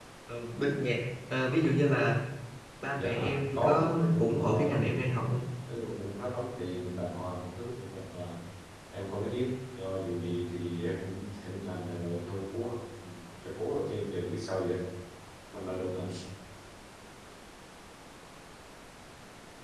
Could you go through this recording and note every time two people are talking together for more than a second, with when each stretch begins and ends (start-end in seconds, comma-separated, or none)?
2.9-5.1